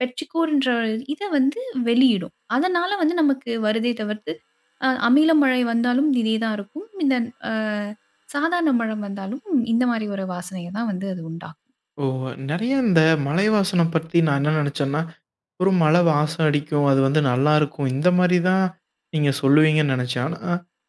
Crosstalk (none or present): none